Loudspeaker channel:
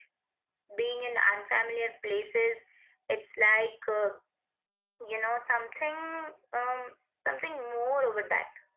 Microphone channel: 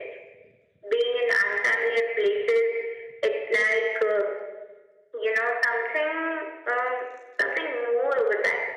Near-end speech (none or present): none